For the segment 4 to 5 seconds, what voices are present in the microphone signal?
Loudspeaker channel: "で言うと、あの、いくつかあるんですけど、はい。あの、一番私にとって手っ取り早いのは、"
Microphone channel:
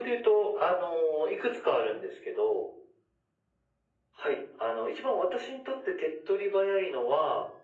echo only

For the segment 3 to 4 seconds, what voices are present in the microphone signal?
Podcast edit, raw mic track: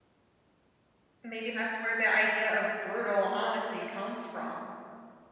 user only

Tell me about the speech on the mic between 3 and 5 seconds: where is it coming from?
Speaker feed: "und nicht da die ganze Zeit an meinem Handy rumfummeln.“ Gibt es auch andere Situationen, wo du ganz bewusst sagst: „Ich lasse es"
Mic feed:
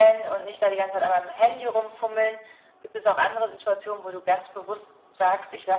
echo only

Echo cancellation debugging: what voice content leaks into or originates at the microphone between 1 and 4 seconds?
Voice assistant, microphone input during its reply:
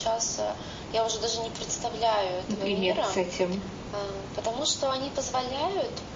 both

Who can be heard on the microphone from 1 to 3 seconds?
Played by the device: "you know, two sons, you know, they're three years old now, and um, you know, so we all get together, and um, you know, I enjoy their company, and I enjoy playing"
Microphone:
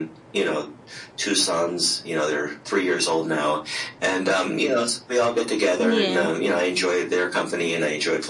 echo only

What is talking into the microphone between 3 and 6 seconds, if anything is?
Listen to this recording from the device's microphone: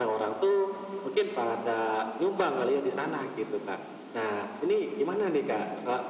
echo only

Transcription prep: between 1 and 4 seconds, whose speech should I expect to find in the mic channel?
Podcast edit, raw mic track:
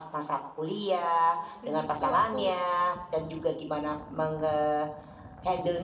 both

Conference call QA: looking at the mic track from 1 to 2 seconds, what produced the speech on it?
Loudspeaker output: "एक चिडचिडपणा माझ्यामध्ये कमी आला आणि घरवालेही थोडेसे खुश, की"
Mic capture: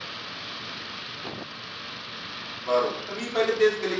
neither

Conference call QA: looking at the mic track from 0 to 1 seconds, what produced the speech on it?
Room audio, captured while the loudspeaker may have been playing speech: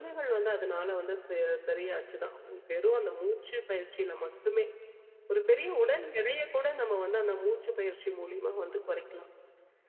echo only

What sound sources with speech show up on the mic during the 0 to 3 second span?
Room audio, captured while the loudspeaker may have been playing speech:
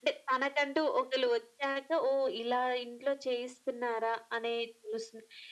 echo only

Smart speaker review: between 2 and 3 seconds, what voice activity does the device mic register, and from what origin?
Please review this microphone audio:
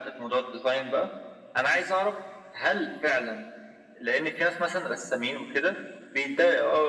echo only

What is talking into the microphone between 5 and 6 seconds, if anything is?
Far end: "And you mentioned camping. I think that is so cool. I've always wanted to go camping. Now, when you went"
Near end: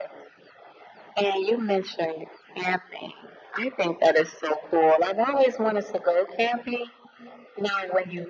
echo only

